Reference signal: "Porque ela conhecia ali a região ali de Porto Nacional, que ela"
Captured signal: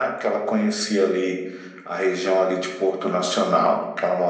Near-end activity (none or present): none